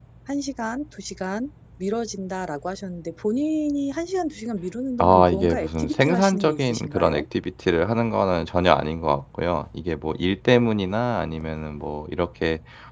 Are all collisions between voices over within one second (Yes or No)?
No